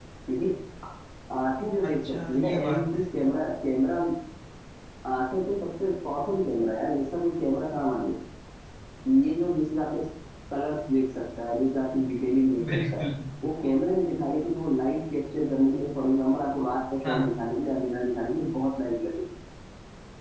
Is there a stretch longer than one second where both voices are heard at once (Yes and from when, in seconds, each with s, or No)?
Yes, from 1.8 s